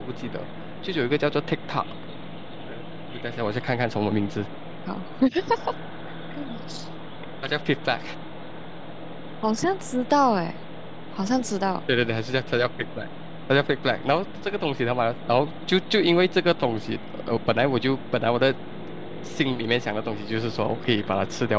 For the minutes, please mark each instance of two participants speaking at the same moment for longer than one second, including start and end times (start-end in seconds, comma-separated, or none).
none